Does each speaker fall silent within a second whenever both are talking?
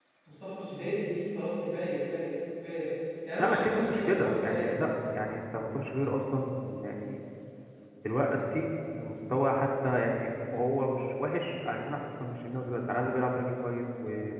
No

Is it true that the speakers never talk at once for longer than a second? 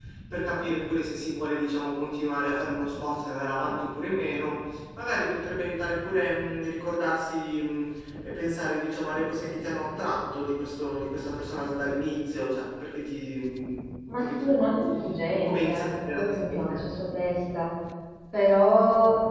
No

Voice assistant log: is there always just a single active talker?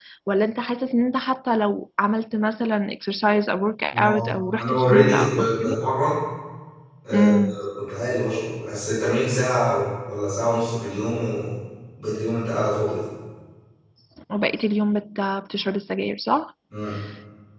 No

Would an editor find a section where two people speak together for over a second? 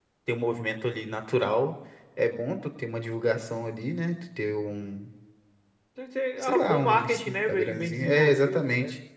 Yes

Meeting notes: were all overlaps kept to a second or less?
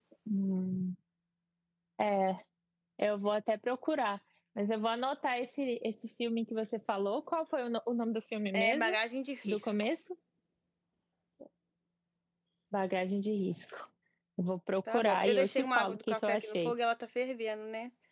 No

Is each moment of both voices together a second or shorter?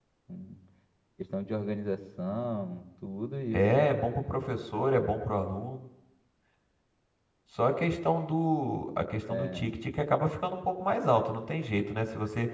Yes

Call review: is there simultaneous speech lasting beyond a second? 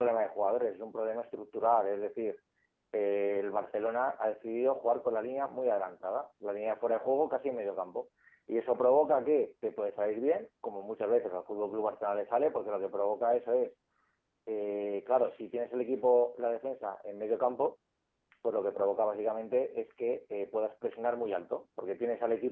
No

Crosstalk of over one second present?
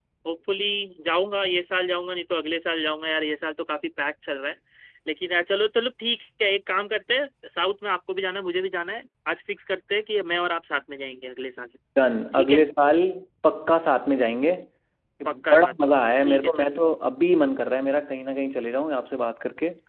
Yes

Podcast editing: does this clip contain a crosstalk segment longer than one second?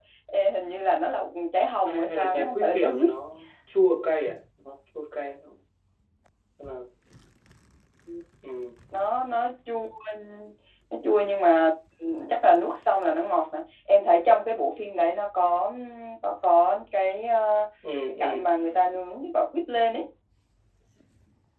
Yes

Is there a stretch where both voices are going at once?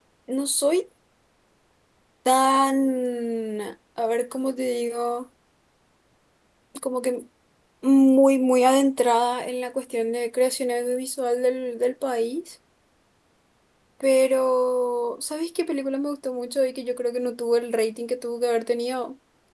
No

